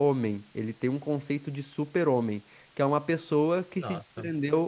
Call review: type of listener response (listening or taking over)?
listening